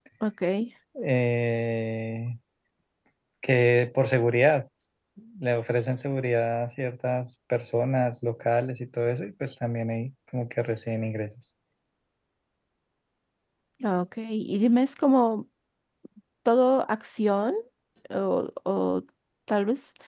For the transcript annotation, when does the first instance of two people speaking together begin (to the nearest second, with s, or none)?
none